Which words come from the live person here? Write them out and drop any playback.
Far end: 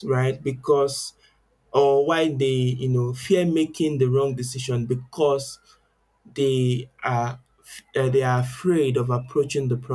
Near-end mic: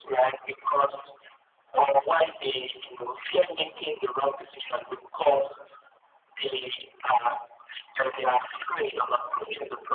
none

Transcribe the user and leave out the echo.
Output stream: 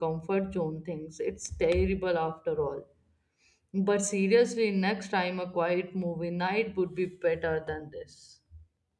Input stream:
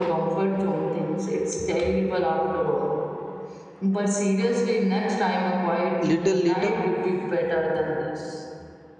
little later,

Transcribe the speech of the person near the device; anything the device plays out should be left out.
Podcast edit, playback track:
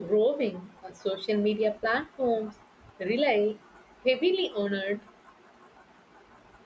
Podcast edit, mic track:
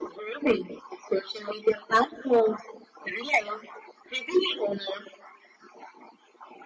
none

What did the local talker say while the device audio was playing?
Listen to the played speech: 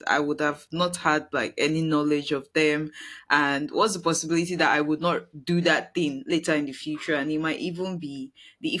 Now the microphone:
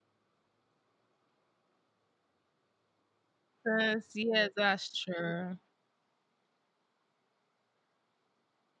Yes. Yes. That's true.

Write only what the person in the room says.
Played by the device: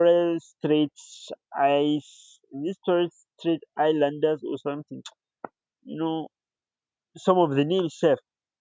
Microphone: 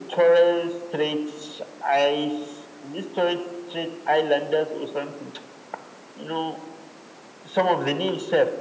none

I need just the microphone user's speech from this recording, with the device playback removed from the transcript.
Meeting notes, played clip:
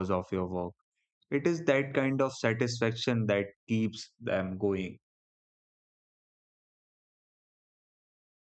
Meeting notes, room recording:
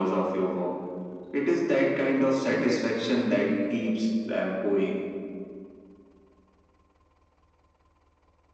and it can get really

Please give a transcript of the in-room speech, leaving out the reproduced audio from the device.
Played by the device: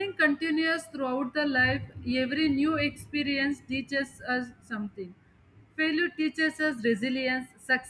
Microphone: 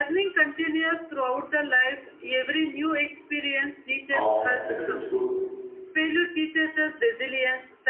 of a successful

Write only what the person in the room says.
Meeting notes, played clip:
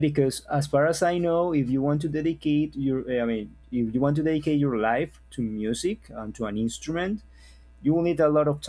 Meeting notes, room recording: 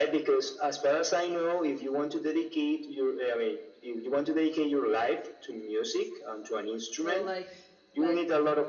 so like like

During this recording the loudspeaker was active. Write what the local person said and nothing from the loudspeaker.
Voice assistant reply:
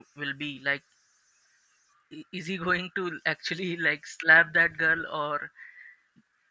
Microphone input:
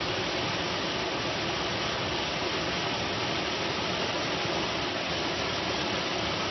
none

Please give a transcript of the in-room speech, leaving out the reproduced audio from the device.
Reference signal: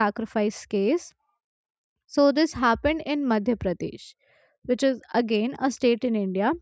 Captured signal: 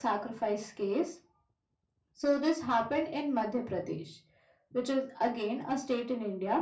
none

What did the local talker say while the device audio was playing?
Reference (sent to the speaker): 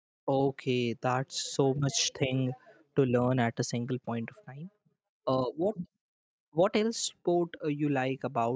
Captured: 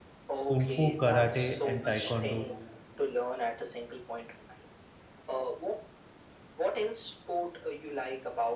Kung Fu, Karate, and Taekwondo,

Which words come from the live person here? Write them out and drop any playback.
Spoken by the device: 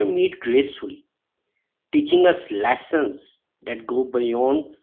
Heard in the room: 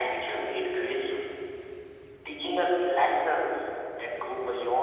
none

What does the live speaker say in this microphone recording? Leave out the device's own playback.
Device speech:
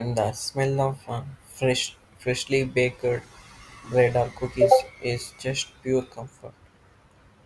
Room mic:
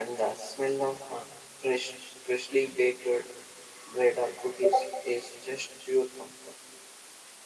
none

